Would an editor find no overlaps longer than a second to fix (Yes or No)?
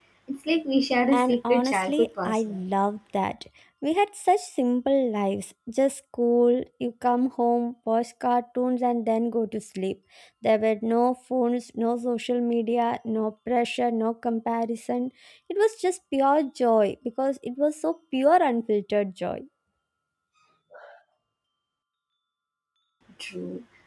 No